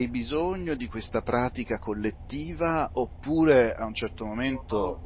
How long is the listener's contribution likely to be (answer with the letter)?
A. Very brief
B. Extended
A